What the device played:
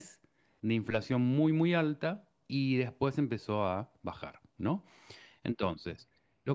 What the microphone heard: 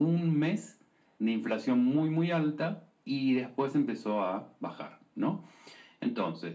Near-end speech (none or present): none